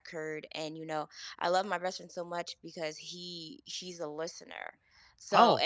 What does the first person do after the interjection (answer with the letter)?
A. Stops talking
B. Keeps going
B